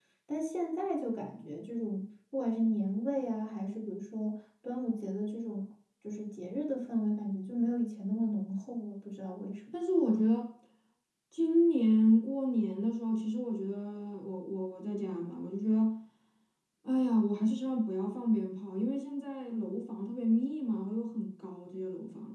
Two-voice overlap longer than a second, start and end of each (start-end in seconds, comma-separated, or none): none